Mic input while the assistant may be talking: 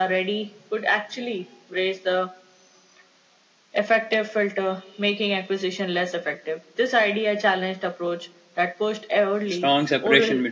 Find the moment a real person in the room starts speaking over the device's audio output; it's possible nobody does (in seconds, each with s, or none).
9.5 s